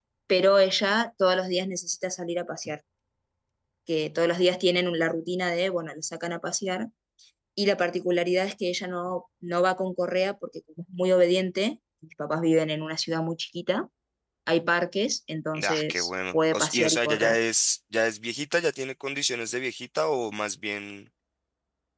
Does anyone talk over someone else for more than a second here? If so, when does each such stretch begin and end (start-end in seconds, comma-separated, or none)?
15.6-17.4